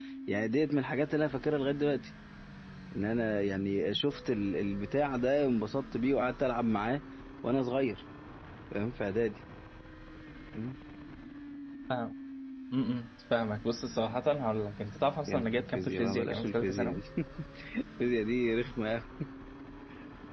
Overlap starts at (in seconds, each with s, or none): 15.3 s